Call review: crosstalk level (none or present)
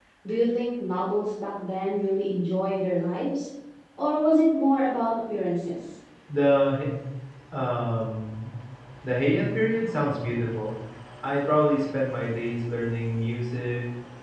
none